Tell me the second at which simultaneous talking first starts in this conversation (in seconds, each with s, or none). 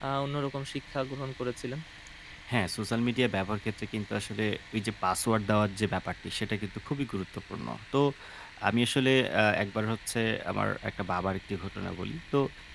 none